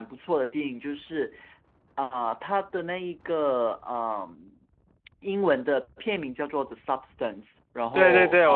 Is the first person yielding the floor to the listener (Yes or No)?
Yes